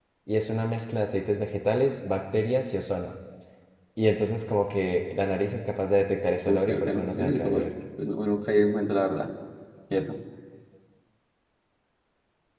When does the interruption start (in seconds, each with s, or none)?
6.5 s